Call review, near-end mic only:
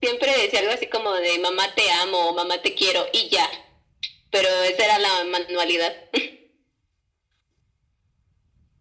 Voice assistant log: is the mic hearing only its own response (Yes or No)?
Yes